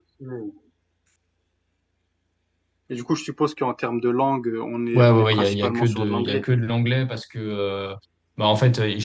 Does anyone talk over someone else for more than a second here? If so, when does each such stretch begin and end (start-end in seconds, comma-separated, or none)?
4.9-6.5